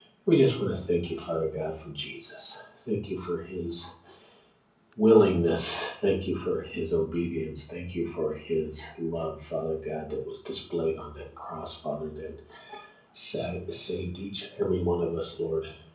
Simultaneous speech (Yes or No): No